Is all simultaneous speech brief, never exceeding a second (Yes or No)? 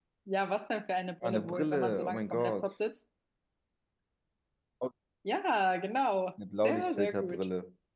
No